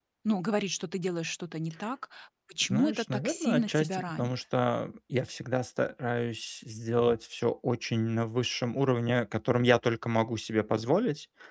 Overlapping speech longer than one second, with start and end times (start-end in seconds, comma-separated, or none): 2.6-4.3